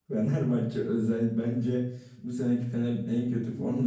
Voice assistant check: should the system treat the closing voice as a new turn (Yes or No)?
Yes